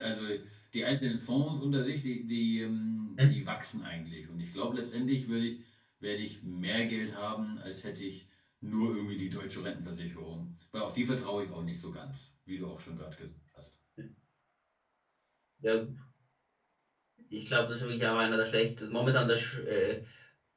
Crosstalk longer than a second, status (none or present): none